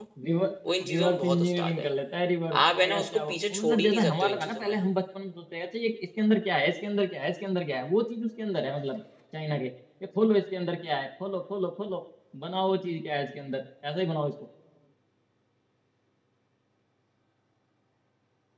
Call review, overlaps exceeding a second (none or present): present